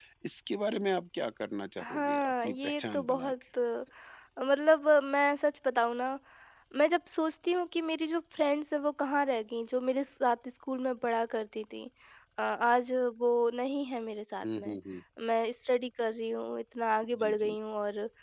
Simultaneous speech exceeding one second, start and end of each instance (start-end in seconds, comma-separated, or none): 1.8-3.3